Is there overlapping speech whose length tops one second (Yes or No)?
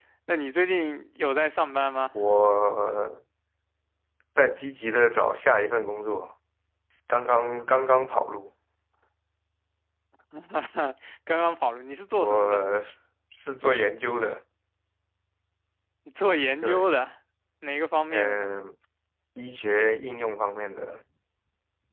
No